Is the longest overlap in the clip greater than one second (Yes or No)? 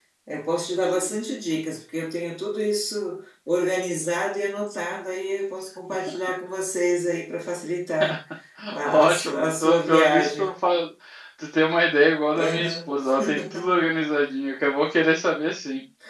Yes